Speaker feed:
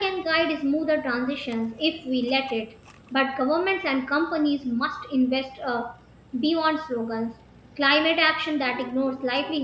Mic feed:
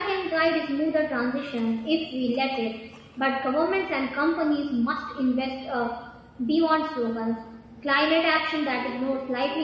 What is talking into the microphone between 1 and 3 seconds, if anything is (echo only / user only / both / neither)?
echo only